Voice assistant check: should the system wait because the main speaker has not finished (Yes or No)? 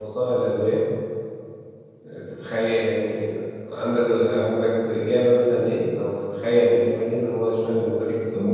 No